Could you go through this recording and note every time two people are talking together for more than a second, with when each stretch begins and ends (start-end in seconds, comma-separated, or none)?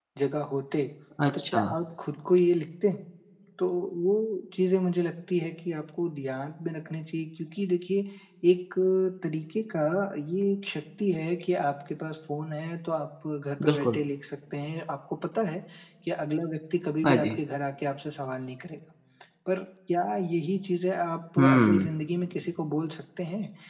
none